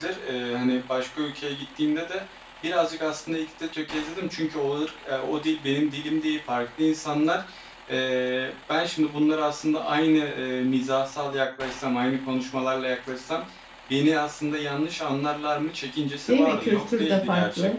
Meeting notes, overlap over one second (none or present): present